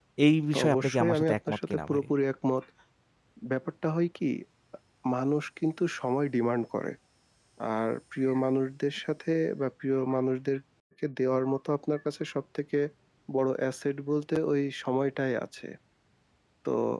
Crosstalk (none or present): present